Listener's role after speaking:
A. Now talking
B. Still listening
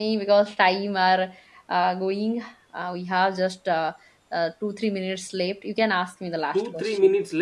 A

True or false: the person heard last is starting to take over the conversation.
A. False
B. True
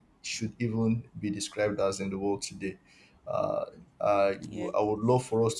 A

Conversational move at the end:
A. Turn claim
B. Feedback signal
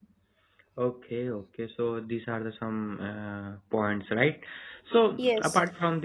B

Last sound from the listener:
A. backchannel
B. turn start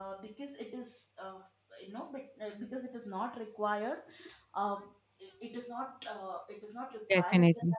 A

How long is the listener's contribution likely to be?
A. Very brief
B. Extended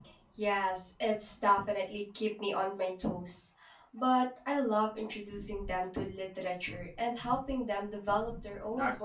B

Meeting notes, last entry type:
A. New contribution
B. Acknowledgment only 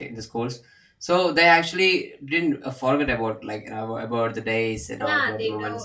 A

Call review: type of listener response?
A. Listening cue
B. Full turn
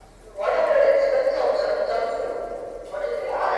B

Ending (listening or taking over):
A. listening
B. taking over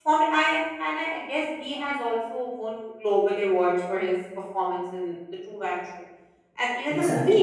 A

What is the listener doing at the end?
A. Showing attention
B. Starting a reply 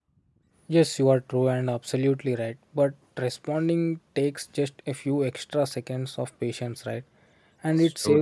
A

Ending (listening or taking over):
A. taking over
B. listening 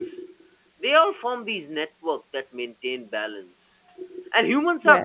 B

